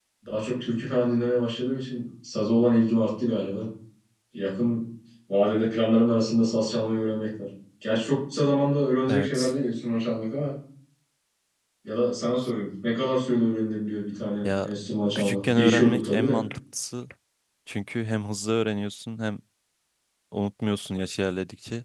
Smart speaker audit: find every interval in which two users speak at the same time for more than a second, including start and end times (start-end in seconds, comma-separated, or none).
15.2-16.4